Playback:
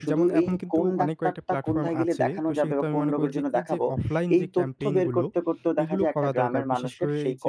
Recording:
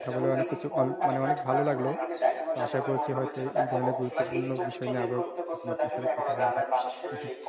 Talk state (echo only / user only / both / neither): both